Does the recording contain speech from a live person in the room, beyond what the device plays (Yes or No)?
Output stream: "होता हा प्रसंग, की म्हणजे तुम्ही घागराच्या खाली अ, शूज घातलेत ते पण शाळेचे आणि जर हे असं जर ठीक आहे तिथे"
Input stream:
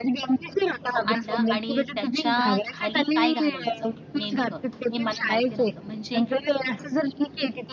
Yes